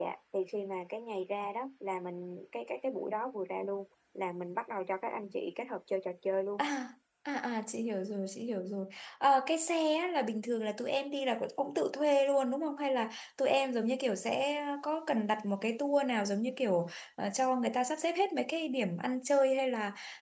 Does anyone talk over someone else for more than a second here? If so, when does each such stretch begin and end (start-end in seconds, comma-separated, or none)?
none